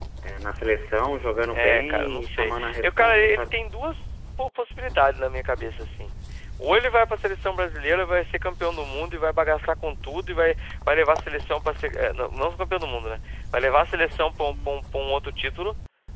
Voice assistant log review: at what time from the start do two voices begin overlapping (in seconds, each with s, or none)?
1.5 s